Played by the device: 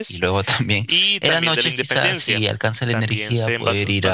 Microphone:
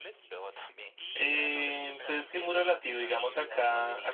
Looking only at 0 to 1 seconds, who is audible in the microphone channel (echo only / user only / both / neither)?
echo only